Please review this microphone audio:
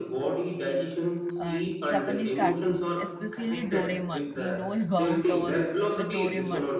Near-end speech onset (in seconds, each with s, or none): 1.4 s